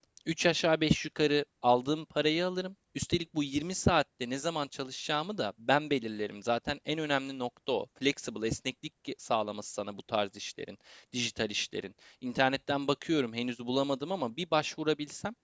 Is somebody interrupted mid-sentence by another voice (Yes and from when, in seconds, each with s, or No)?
No